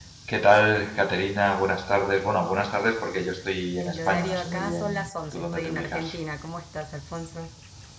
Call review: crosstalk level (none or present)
present